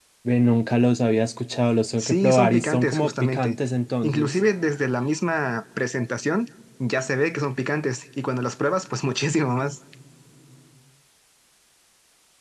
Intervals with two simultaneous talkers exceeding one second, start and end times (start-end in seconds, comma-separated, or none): 2.0-3.6